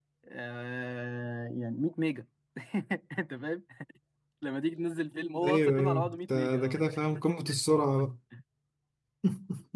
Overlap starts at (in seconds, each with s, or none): 5.4 s